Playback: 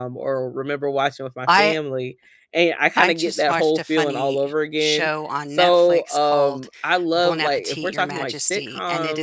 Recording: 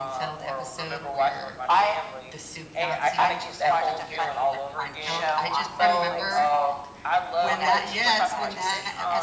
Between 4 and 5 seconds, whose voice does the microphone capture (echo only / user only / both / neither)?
both